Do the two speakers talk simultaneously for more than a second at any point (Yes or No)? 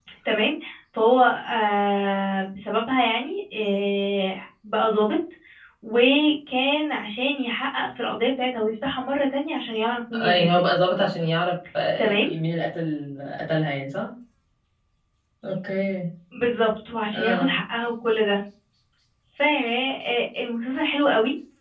No